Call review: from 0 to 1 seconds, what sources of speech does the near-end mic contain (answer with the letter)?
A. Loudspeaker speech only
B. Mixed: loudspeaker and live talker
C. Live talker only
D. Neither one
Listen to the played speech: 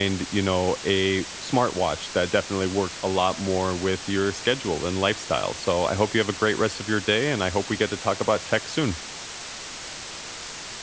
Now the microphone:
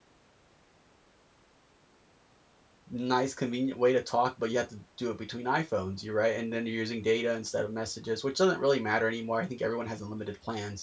D